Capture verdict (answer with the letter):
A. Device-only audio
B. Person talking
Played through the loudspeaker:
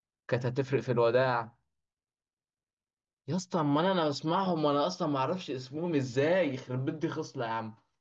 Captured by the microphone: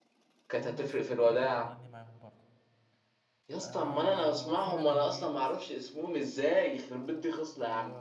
B